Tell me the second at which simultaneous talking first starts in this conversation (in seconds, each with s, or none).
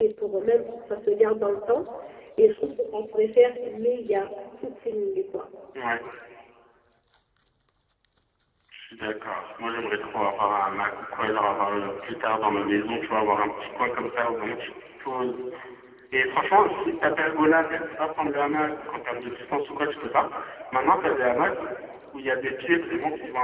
none